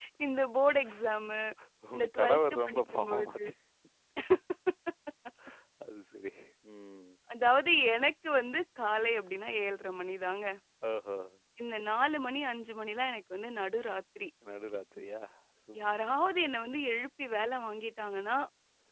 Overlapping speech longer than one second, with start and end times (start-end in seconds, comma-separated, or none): 1.9-3.5